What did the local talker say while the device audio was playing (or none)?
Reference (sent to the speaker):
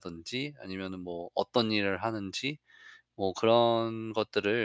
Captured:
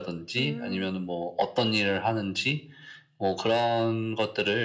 음.